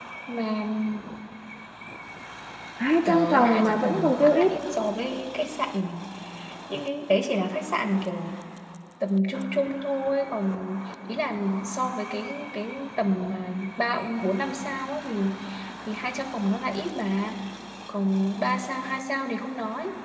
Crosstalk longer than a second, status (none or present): present